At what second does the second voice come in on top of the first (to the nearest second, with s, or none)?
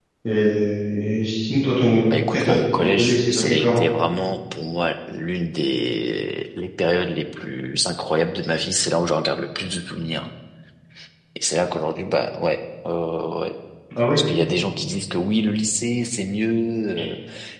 2 s